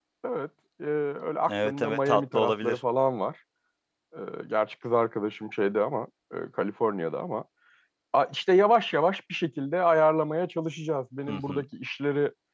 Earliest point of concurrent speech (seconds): 1 s

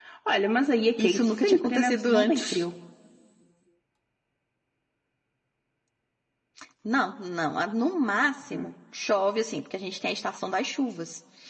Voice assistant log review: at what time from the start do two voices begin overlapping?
1 s

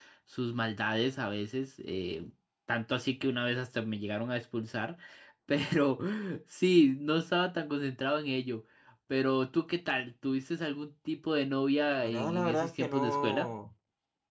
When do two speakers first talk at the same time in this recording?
12 s

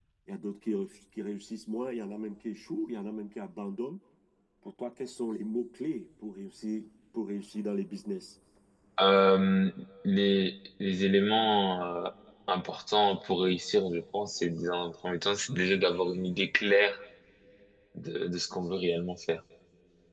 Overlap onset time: none

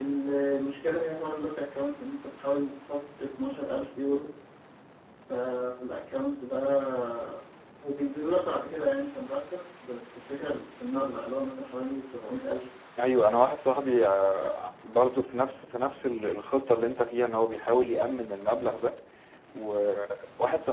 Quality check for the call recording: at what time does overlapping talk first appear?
none

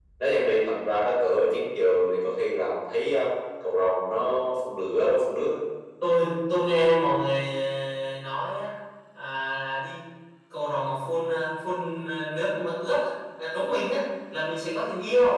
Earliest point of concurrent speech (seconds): none

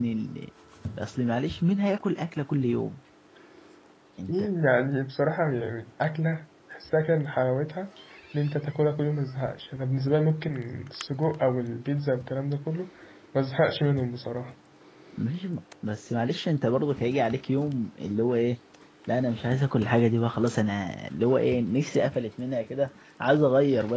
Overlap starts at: none

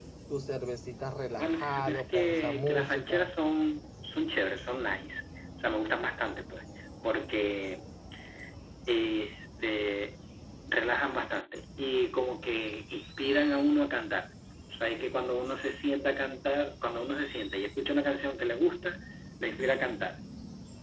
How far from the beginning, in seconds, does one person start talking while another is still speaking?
1 s

